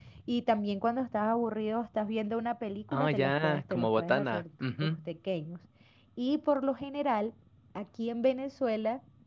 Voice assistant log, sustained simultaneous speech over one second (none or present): present